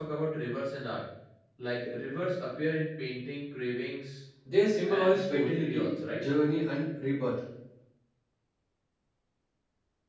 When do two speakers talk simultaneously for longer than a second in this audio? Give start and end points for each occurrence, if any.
4.8-6.2

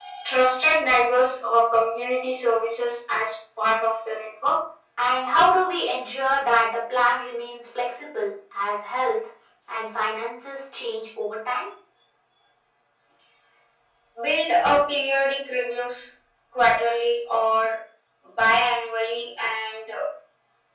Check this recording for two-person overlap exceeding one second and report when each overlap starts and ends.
none

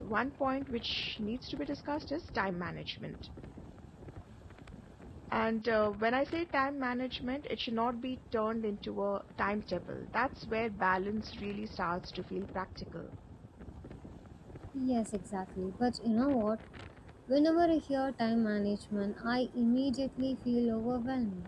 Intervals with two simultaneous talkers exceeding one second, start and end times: none

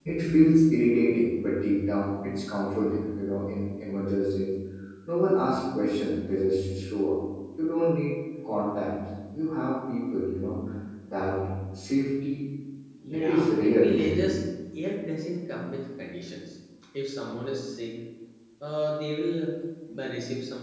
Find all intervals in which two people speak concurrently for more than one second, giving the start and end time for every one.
13.1-14.3

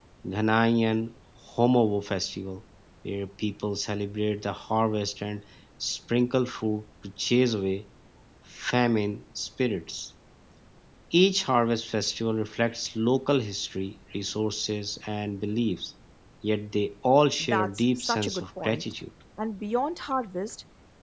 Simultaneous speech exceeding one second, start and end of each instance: 17.4-18.8

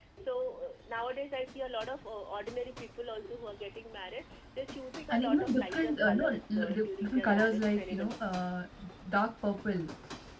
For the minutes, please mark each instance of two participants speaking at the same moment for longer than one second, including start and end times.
5.1-8.2

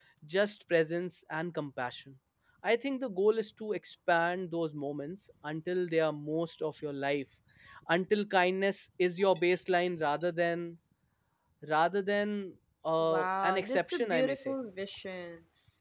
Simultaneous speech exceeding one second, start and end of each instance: 13.0-14.5

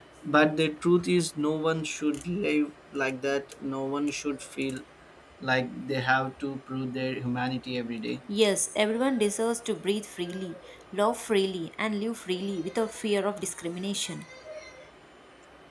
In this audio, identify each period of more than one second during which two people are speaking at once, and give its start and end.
none

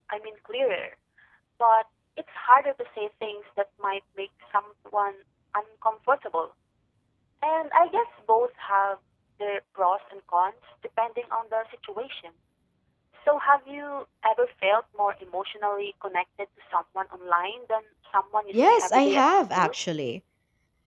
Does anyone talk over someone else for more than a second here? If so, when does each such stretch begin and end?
18.5-19.7

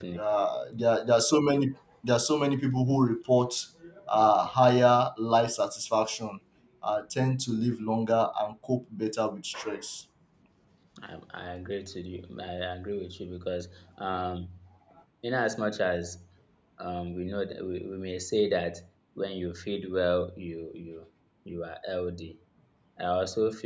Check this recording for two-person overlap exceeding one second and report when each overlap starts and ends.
none

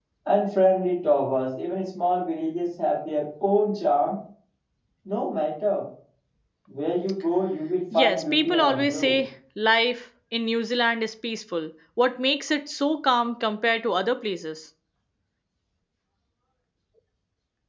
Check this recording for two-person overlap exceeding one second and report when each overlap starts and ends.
7.9-9.2

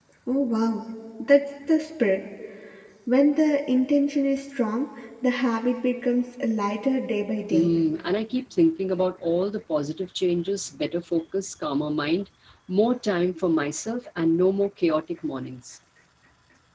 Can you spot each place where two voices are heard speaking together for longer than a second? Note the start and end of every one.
none

